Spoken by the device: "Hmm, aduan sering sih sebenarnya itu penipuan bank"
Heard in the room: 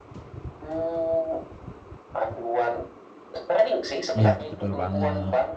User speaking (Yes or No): Yes